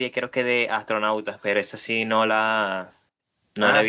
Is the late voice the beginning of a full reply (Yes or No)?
No